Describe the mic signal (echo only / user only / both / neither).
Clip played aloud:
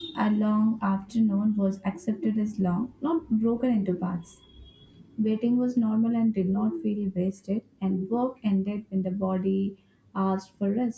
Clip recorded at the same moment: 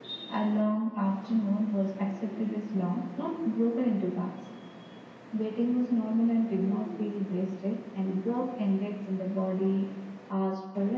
echo only